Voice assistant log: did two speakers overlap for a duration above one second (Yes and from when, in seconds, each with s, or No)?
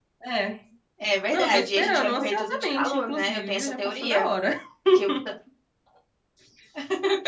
Yes, from 1.3 s